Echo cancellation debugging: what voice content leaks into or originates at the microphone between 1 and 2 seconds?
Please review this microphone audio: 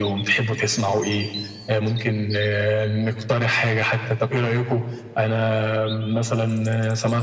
echo only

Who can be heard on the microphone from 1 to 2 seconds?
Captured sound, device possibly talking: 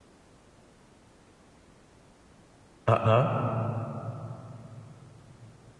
neither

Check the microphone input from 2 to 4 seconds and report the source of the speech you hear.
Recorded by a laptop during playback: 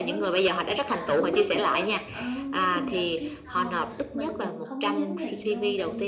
both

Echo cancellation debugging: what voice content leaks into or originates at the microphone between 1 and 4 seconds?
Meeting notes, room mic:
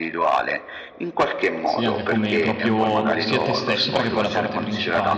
both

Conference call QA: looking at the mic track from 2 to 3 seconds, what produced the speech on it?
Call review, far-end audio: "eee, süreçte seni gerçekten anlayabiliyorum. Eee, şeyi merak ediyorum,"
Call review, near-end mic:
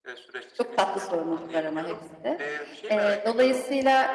both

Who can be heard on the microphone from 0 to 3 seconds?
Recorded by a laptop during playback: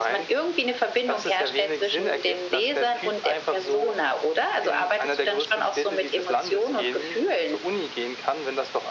echo only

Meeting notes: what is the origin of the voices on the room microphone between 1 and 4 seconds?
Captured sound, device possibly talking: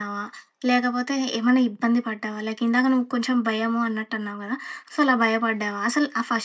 user only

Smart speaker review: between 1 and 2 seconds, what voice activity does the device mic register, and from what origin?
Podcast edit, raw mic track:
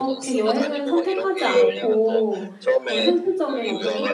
both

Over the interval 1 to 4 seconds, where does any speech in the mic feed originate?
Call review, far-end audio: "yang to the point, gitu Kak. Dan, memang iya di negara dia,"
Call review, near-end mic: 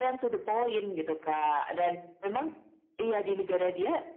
echo only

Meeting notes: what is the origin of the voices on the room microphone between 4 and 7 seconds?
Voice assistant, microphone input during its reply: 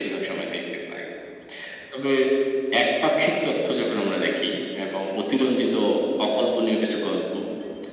echo only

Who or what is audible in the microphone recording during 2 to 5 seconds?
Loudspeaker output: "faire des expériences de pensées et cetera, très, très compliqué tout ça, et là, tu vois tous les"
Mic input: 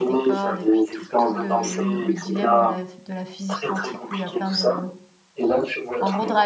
both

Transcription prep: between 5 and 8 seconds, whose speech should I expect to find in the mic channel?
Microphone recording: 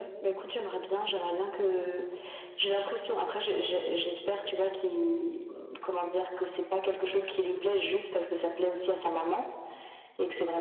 echo only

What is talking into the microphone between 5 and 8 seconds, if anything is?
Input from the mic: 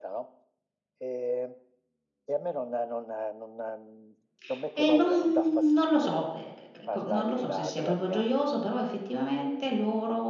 both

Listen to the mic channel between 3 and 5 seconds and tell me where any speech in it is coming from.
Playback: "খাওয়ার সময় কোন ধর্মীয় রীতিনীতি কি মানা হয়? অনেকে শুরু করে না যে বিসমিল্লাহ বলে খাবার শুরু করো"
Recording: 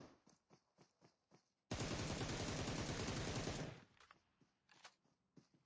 neither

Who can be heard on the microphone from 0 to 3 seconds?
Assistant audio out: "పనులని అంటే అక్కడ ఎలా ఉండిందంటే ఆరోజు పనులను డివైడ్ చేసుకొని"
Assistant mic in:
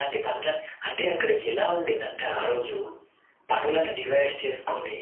echo only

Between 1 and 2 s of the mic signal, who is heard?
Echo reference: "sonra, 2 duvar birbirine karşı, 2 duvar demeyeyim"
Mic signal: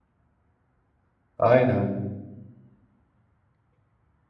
user only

